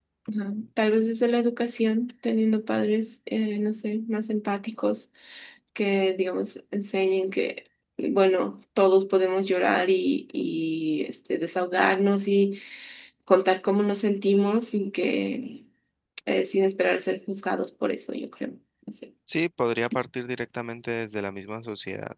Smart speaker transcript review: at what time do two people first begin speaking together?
none

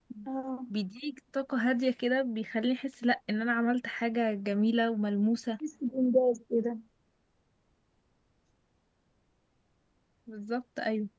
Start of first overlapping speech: none

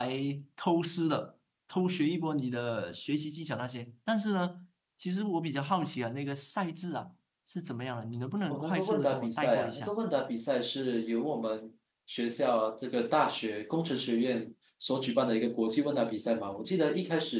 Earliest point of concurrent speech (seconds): 9 s

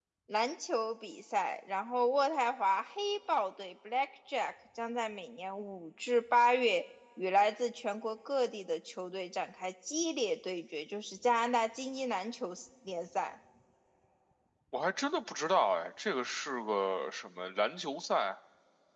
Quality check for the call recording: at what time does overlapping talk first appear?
none

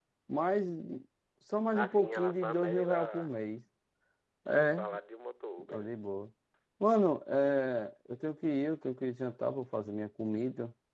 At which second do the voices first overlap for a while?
2 s

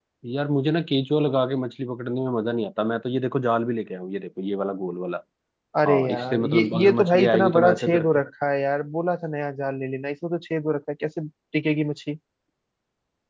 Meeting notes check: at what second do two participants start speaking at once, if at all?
6 s

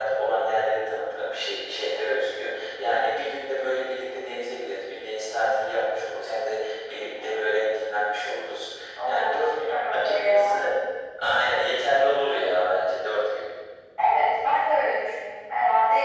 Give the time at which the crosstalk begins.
9 s

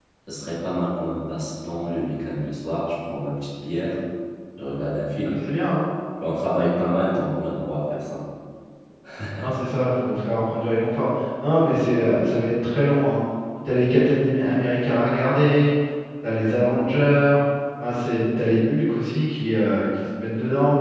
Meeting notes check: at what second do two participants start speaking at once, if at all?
none

